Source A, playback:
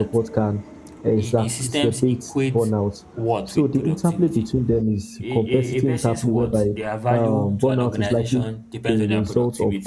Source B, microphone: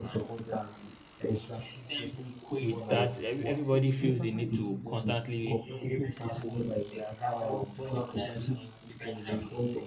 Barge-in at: 2.6 s

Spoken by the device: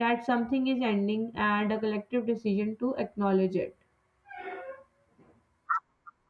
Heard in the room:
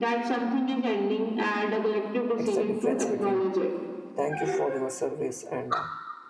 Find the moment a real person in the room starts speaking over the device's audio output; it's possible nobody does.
2.3 s

